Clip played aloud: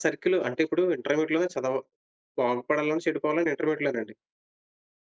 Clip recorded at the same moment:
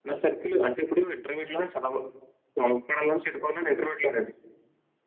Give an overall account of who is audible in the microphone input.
echo only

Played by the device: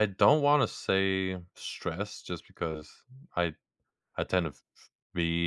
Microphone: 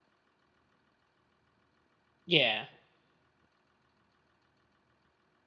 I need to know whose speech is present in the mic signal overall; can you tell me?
user only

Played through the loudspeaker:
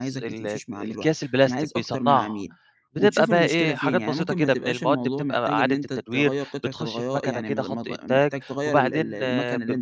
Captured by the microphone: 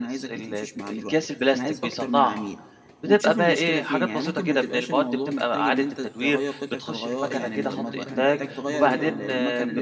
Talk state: both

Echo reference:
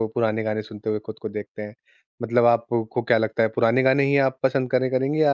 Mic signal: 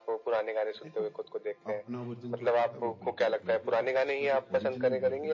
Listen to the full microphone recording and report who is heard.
both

